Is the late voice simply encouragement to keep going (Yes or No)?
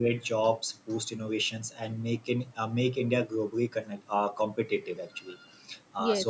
Yes